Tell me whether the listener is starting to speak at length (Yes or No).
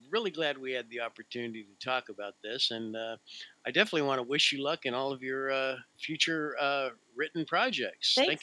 Yes